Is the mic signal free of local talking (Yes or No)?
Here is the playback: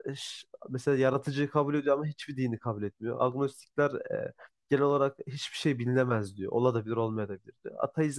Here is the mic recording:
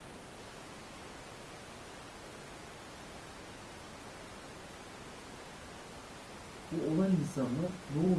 No